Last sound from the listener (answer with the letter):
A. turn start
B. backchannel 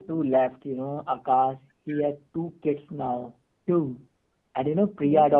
B